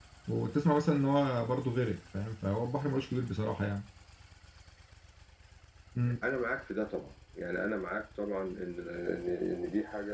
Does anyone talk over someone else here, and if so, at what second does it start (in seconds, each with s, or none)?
none